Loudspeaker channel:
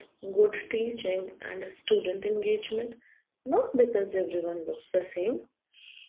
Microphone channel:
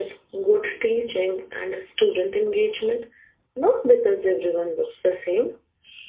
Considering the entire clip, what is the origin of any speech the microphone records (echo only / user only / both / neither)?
echo only